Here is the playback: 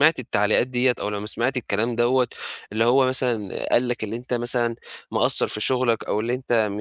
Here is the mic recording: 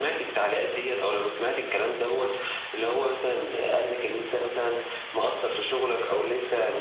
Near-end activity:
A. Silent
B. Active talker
A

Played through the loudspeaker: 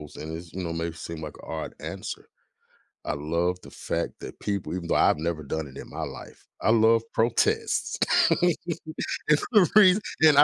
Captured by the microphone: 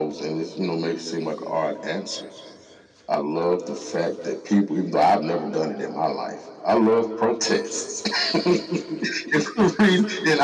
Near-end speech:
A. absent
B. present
A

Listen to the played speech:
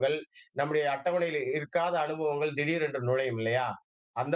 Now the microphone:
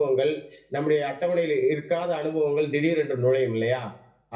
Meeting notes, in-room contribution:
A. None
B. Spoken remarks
A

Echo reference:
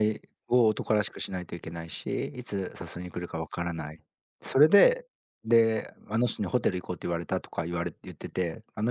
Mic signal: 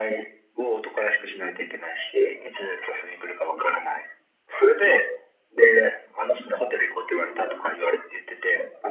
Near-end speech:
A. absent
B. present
A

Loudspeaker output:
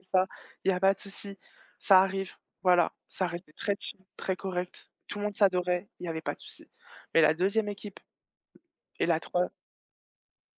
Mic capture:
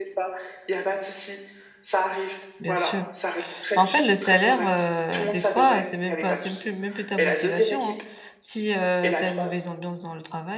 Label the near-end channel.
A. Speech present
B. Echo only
A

